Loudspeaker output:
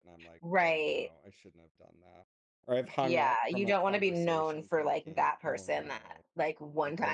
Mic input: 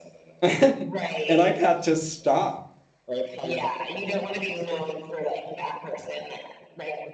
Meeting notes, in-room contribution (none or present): present